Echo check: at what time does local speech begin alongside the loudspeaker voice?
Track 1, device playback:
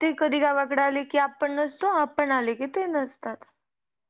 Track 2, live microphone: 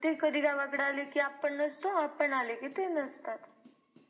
none

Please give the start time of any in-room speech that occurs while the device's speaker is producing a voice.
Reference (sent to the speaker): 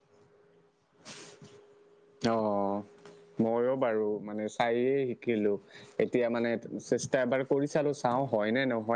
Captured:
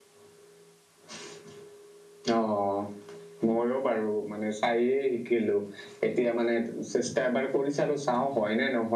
none

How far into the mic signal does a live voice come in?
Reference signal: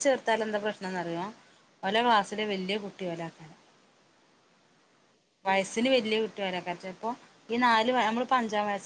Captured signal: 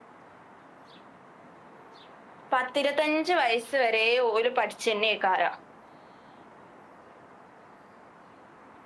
2.5 s

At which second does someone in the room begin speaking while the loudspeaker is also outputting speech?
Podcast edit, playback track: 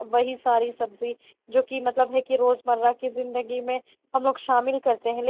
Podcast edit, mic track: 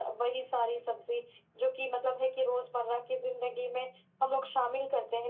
none

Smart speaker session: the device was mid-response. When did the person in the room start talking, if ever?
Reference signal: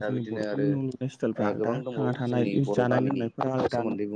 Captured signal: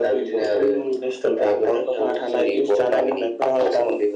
none

